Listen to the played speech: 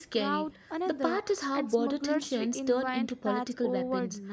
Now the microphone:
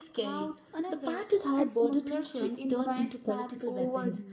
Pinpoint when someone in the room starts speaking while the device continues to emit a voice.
none

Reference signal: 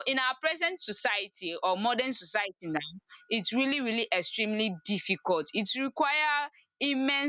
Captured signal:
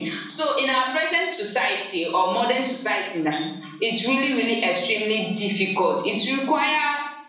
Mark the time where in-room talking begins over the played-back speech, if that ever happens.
none

